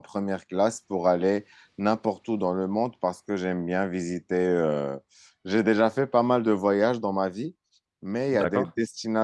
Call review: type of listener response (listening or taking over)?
listening